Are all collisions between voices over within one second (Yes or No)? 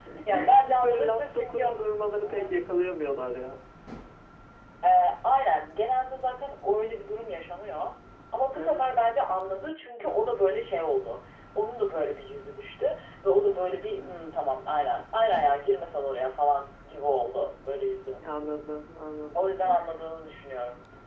No